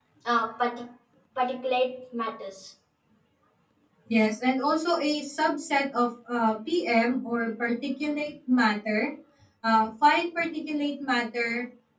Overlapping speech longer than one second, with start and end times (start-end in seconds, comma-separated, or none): none